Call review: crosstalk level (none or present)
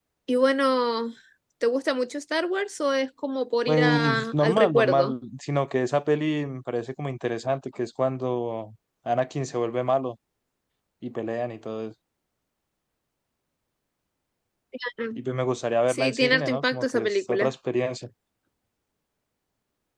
present